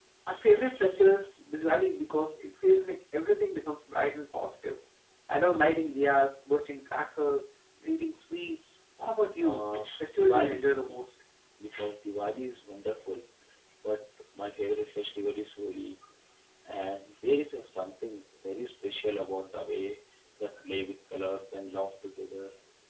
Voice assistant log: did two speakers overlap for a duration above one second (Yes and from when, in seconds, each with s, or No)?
Yes, from 9.4 s